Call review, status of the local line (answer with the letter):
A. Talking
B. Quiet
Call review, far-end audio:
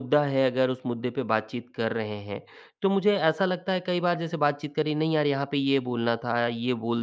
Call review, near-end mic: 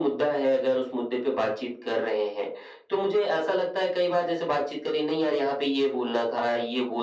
B